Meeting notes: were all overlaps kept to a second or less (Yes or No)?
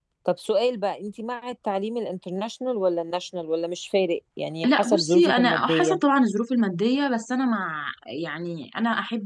No